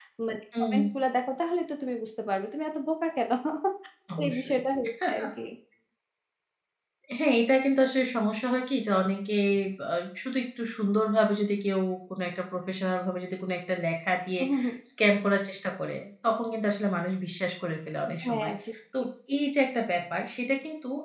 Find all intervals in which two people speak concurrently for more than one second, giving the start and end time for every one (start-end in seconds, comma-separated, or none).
none